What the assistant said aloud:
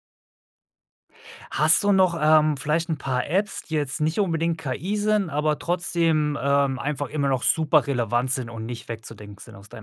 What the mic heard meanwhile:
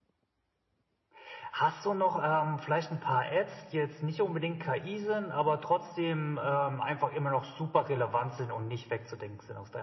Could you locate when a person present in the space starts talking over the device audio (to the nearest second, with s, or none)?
none